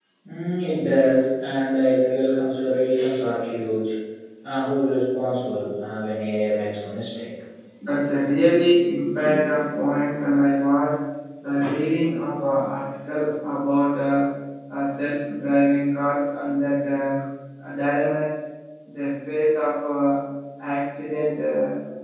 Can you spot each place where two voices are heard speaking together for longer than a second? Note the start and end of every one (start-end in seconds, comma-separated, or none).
none